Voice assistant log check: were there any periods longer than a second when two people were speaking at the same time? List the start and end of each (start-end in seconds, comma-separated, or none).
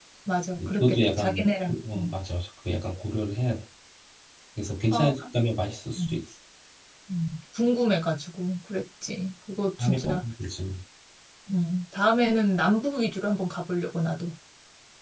0.7-2.1